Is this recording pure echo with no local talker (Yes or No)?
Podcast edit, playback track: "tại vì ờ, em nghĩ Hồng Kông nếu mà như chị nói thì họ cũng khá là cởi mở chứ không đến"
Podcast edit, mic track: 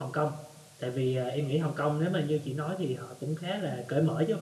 Yes